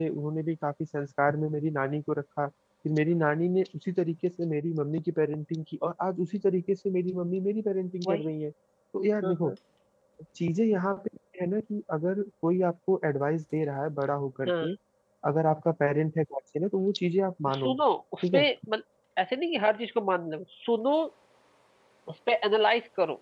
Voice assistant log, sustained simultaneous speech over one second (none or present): none